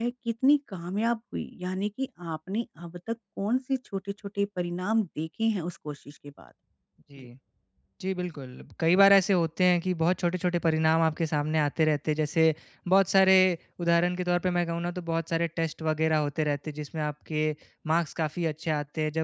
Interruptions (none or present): none